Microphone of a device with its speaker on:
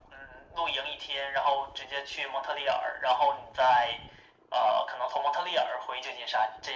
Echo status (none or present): present